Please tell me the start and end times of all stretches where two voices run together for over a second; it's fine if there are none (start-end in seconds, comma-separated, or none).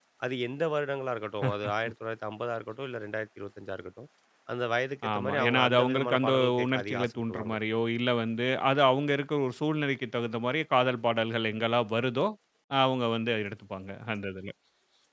5.1-7.5